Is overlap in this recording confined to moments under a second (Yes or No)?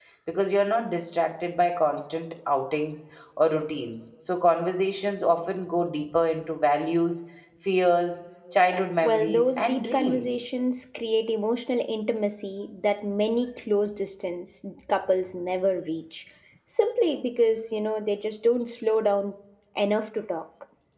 No